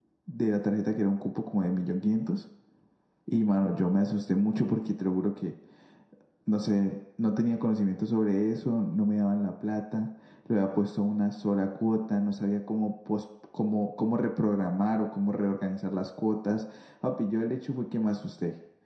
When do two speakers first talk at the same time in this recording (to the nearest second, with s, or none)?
none